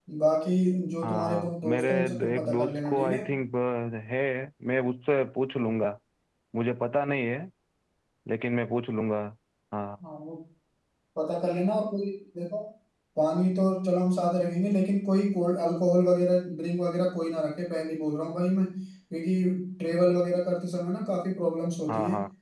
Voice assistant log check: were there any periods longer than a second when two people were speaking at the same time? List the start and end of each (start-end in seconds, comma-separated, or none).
1.0-3.2